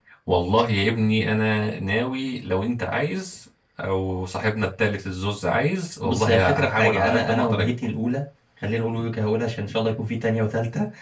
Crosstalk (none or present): present